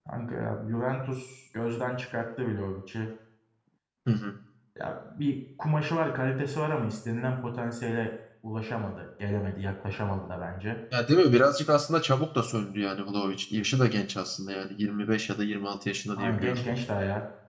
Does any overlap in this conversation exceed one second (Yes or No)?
No